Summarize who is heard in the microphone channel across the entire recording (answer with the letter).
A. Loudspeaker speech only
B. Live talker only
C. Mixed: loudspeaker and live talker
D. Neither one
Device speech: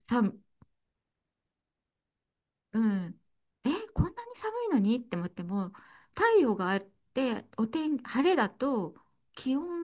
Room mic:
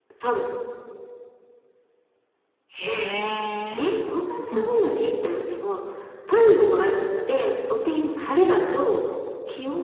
C